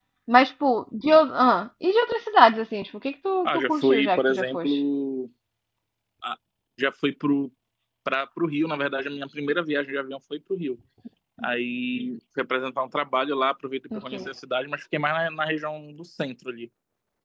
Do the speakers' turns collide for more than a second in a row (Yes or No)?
Yes